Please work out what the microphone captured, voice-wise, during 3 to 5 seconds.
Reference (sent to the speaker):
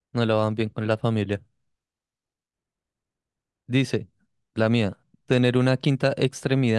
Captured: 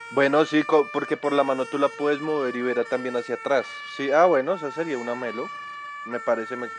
user only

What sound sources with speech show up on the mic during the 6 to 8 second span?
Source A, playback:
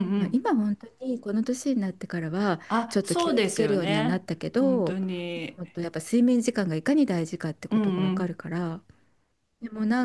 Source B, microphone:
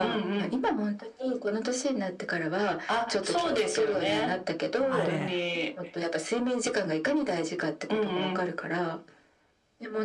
echo only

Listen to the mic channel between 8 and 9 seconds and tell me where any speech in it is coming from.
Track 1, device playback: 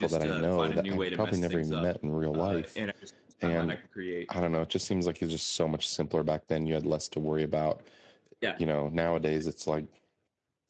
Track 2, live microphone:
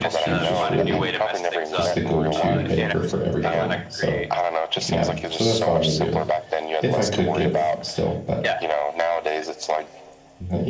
both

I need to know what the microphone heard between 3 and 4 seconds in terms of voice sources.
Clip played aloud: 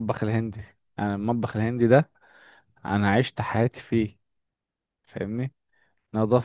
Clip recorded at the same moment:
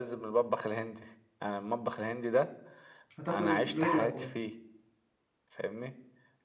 both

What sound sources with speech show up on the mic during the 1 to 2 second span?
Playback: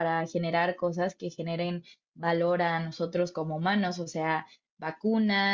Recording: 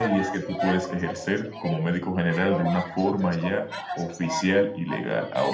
both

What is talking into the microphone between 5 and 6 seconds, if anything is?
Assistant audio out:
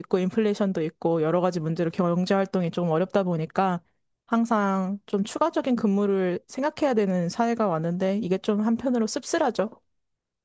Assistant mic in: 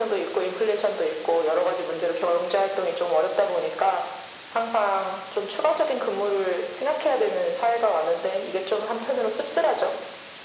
echo only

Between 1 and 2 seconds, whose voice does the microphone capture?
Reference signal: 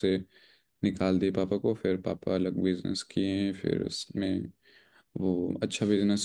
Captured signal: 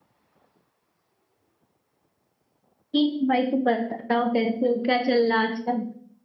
neither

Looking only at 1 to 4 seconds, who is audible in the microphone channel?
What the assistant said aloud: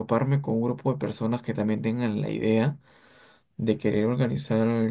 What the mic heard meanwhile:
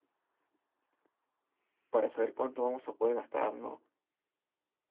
user only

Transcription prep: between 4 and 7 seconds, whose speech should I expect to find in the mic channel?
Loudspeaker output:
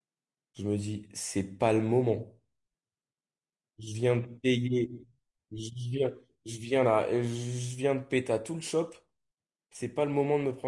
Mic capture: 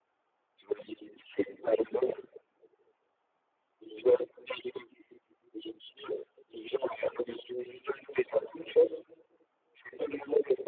echo only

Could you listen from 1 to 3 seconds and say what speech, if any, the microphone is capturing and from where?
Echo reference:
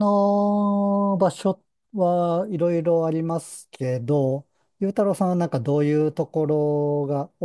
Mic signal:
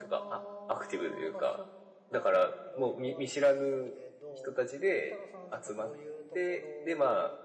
both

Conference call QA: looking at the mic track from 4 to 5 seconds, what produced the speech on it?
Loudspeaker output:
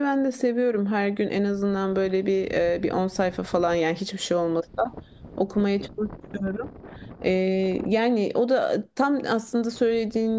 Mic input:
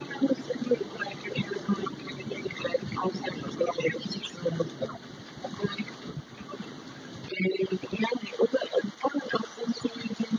echo only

